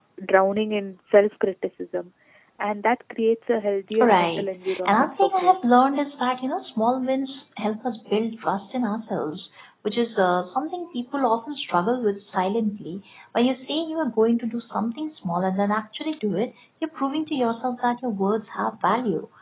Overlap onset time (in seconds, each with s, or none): 3.9 s